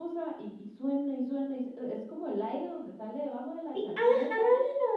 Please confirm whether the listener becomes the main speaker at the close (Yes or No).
Yes